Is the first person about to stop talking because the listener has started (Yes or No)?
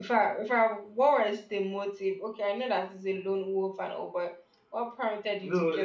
Yes